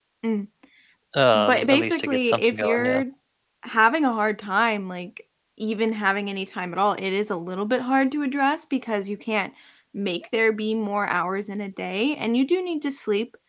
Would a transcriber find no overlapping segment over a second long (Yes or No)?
No